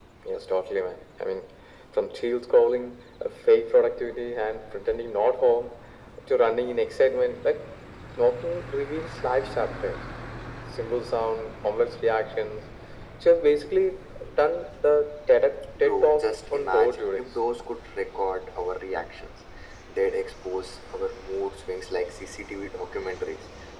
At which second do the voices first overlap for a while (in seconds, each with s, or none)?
15.8 s